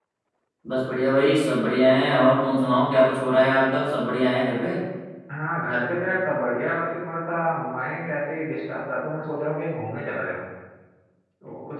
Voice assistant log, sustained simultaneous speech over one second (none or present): none